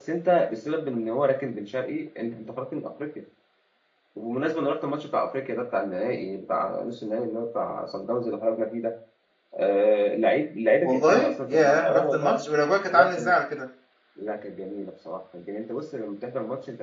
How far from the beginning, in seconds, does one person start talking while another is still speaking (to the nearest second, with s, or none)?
11 s